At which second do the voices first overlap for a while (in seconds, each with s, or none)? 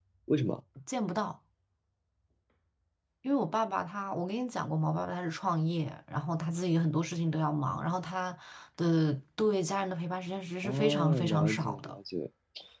10.6 s